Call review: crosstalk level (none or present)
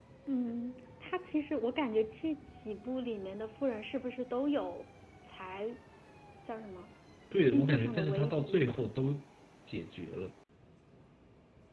present